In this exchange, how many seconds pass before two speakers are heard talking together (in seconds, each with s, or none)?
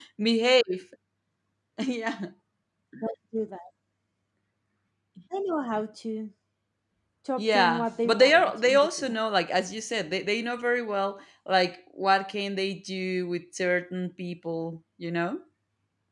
7.4 s